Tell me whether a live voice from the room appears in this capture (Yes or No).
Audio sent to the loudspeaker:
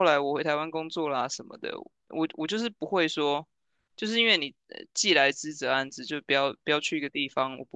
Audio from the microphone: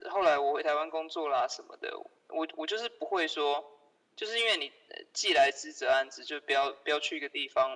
No